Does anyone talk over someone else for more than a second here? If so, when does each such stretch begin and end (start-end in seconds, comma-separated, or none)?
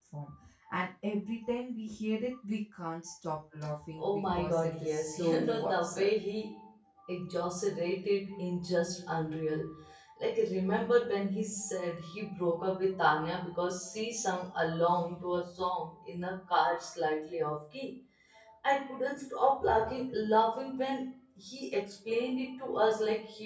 4.0-6.2